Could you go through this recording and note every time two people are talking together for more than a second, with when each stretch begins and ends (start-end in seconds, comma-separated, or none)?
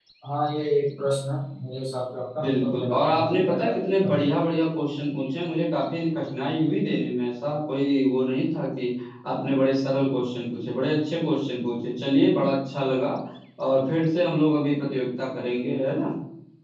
2.4-4.2